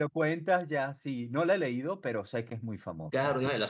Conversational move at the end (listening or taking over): taking over